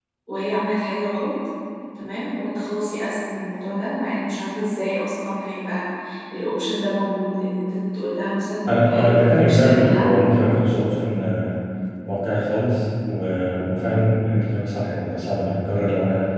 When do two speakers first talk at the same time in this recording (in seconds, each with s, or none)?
8.7 s